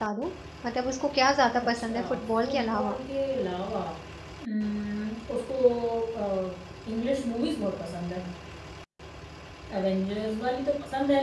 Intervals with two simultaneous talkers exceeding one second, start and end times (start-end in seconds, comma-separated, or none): 1.6-3.0